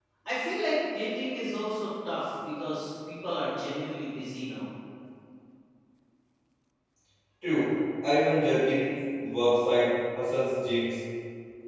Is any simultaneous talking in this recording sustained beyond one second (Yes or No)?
No